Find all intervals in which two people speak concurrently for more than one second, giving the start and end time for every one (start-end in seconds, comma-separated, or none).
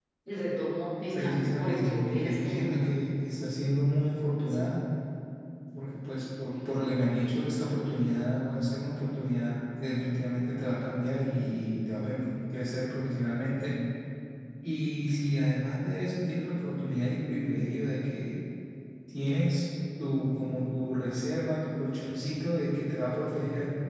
1.1-2.8